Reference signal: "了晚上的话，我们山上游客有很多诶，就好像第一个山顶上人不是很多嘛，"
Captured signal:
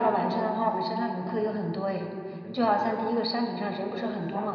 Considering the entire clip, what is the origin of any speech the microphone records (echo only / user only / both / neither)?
both